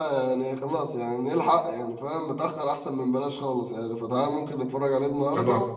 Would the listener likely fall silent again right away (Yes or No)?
Yes